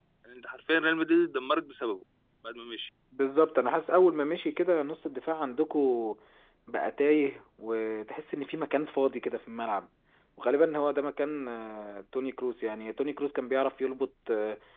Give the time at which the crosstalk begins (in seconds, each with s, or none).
none